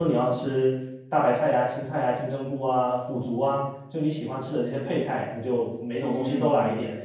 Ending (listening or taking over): taking over